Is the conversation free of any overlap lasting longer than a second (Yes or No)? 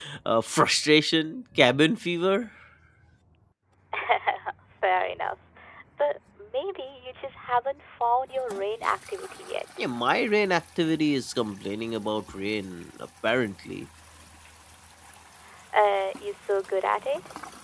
Yes